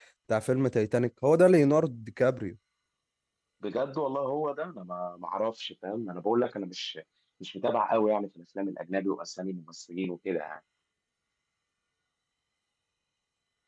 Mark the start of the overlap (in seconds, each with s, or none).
none